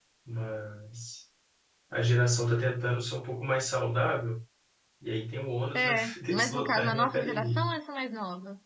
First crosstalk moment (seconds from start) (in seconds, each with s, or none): 5.8 s